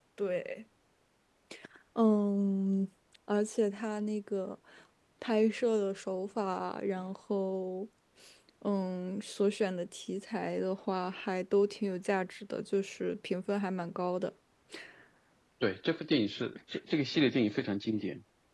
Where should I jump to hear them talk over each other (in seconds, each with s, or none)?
none